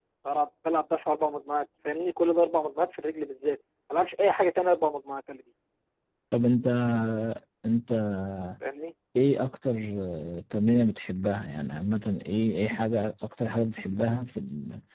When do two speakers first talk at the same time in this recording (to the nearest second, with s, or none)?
none